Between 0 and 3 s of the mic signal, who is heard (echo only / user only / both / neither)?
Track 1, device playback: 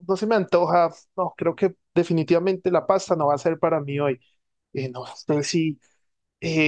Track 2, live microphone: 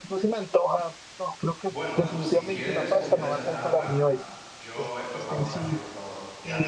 both